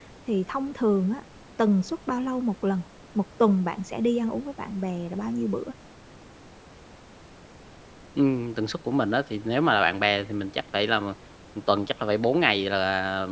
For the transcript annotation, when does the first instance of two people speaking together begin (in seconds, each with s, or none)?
none